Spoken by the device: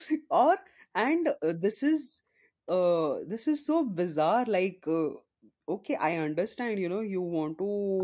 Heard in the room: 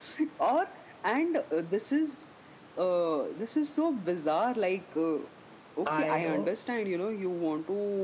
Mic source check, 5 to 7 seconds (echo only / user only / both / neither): both